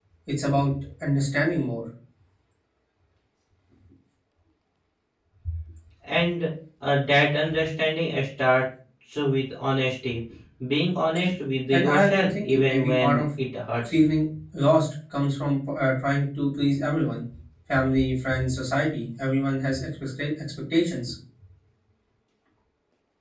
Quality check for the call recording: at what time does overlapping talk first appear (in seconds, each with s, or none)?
11.7 s